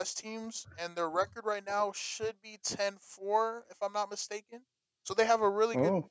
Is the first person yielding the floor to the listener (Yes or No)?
No